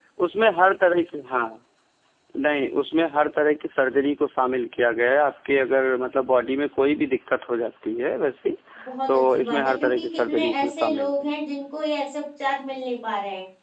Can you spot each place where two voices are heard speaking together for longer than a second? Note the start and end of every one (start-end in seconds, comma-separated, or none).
9.1-11.3